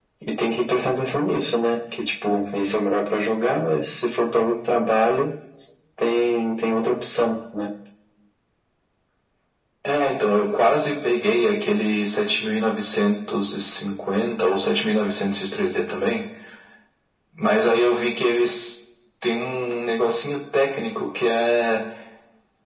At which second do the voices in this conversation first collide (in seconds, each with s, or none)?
none